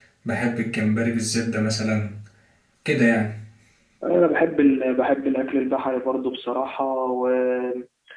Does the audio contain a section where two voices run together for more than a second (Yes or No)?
No